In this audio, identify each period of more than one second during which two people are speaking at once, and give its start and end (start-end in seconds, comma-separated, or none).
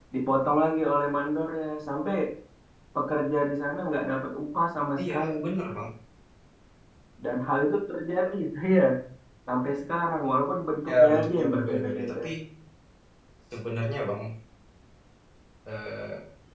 10.9-12.2